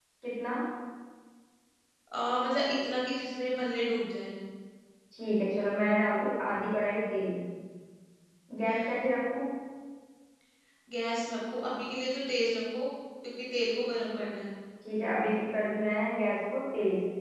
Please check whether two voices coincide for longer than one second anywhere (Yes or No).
No